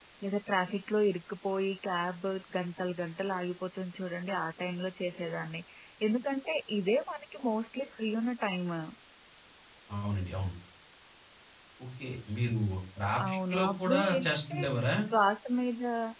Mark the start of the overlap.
13 s

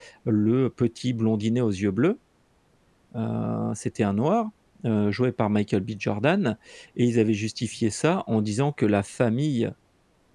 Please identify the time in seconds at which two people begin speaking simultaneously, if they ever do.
none

